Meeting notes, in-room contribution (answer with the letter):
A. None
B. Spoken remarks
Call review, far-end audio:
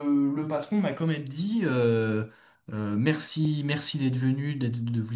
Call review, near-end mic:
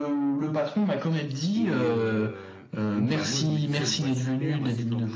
B